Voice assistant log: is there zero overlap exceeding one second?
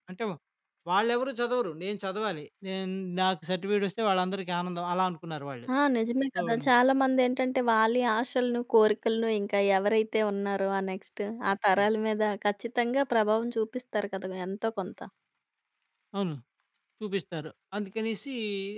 Yes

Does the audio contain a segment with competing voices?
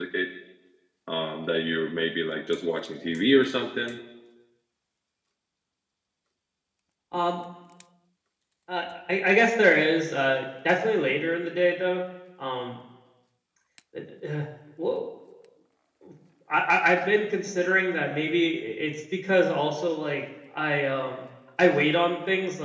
No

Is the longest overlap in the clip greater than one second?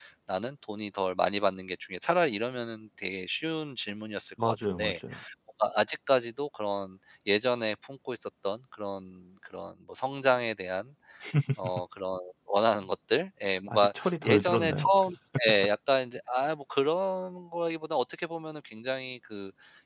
Yes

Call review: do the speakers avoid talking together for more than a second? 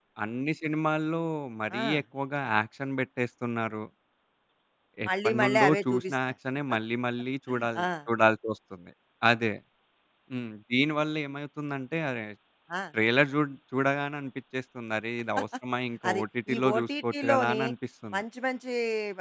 No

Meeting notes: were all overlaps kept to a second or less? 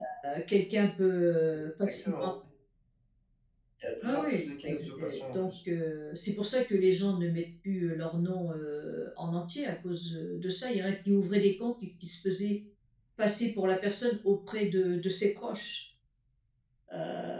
No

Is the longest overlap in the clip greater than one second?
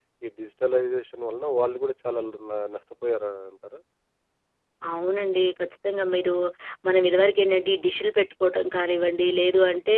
No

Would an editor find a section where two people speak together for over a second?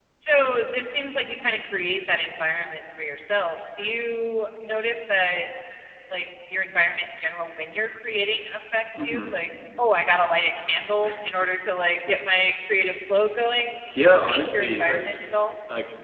Yes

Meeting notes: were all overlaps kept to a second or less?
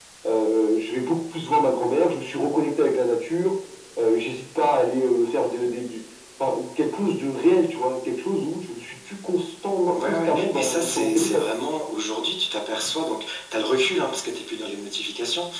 No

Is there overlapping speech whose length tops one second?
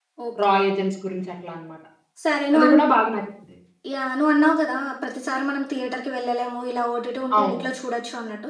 No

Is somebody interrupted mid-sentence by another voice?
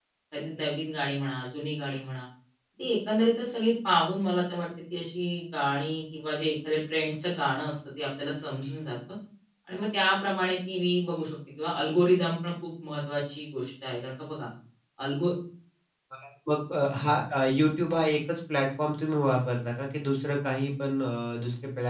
No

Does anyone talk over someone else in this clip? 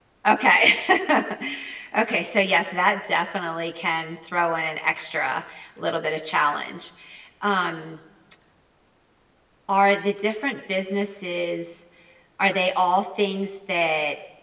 No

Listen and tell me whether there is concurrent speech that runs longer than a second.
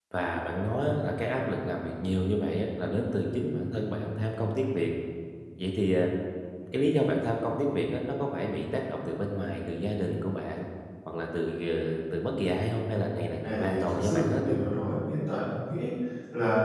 Yes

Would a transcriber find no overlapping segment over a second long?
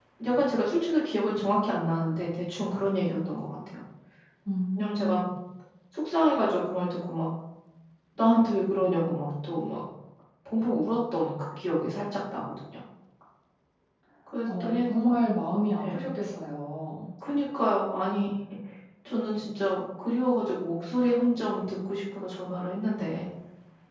Yes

